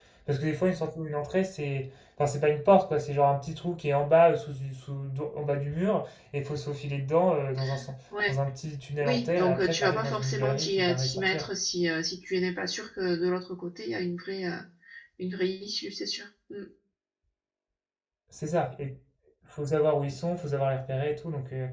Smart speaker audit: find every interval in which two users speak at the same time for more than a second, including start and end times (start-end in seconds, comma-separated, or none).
9.0-11.4